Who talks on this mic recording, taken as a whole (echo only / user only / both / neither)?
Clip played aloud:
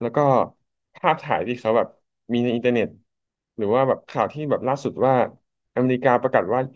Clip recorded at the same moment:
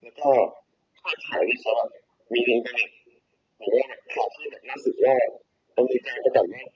echo only